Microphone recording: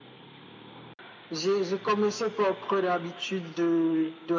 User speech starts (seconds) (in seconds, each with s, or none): none